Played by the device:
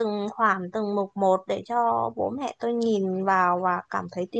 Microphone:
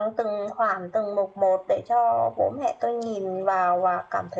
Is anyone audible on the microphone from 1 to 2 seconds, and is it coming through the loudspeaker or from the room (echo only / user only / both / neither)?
echo only